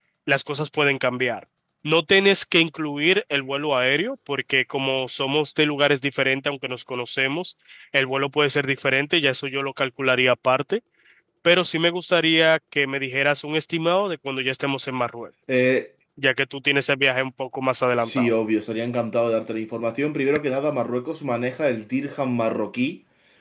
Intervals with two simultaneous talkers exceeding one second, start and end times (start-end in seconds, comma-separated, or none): none